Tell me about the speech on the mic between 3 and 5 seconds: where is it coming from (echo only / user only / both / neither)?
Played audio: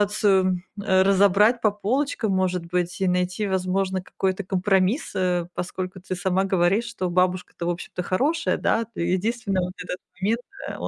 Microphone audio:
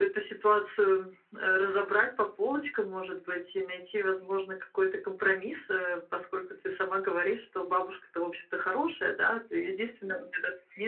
echo only